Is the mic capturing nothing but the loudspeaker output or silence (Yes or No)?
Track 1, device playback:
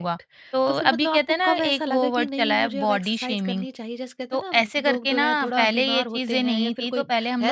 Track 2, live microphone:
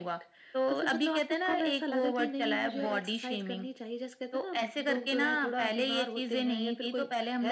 No